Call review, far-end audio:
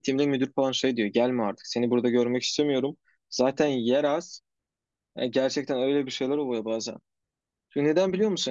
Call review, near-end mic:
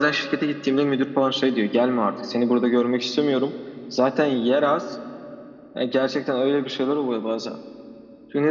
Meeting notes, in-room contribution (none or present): none